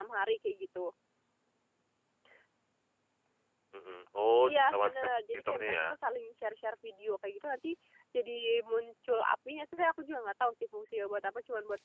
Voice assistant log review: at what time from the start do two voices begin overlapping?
4.5 s

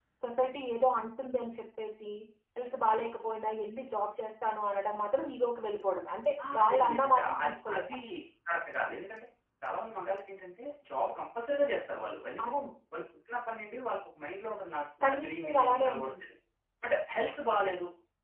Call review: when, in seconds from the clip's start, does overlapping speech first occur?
6.5 s

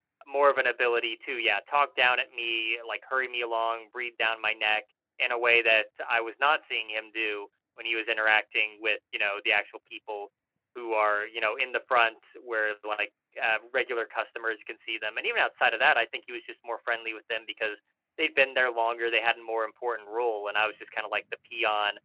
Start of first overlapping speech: none

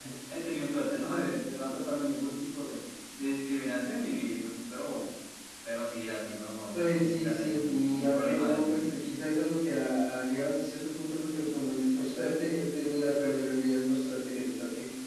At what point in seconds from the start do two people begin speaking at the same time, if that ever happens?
6.7 s

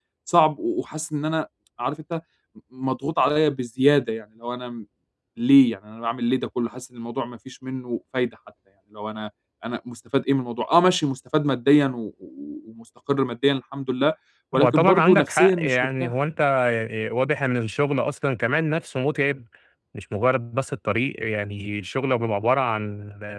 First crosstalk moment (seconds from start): 14.5 s

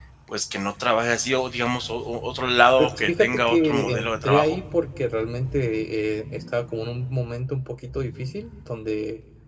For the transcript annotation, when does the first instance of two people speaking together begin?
2.8 s

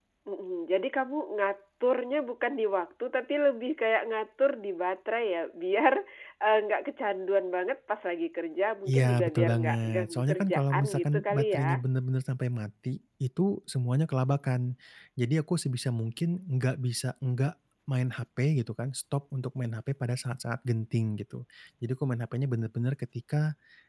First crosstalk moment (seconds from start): 8.8 s

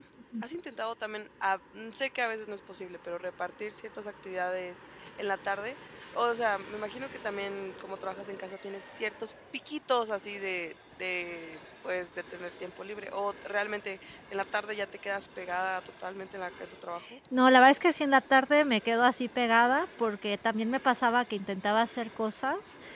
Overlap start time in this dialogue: none

